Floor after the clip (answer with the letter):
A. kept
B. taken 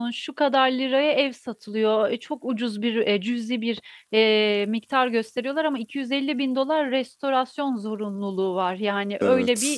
A